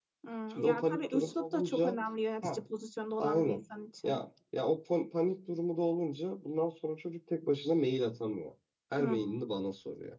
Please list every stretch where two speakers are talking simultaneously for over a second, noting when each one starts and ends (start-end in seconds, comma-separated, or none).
0.5-2.0